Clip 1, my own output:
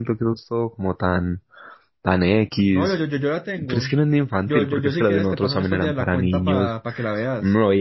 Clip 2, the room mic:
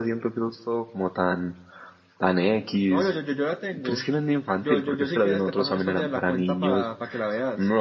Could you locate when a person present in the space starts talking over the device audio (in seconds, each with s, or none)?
none